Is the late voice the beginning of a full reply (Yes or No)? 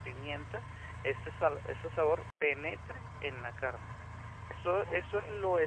No